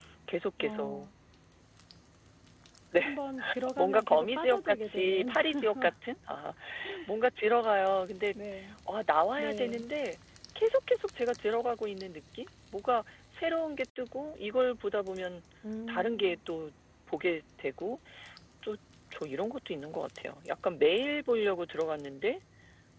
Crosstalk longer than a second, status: present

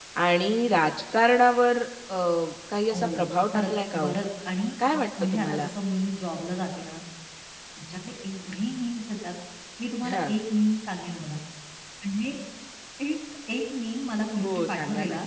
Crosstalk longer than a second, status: present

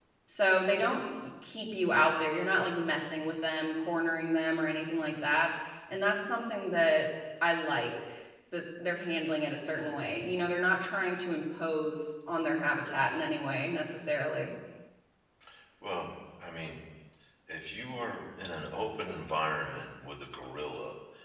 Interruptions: none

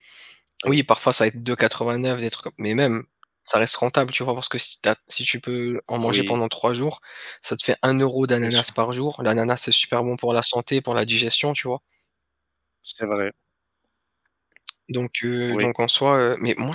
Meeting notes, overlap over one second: none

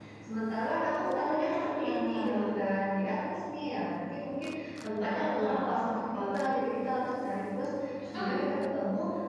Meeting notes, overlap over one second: present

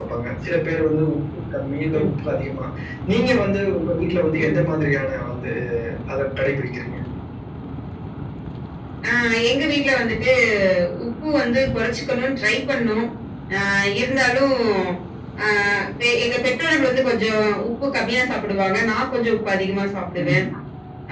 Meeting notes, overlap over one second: none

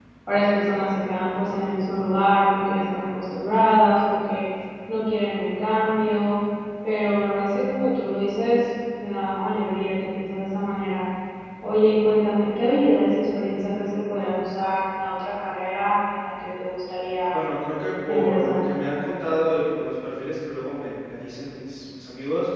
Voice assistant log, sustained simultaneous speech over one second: none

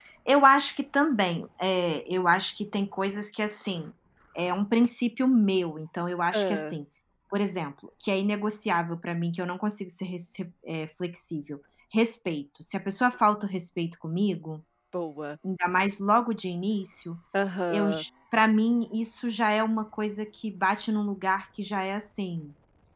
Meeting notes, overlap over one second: none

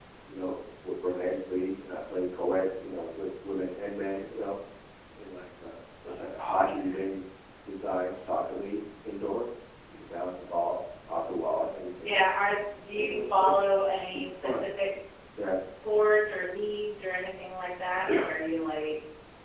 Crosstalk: present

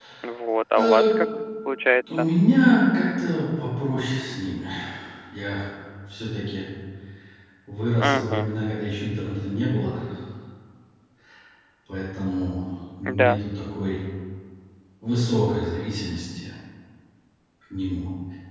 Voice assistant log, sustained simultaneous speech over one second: none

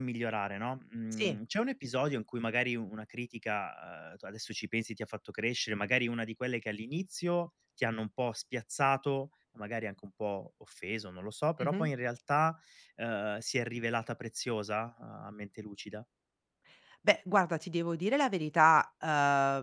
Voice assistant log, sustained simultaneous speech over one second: none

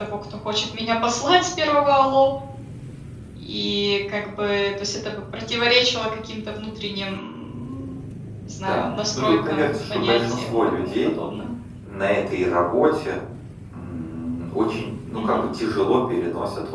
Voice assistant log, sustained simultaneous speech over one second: present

